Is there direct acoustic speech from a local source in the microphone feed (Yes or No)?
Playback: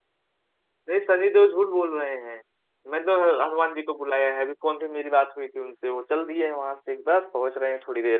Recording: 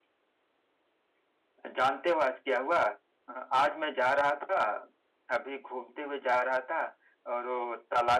Yes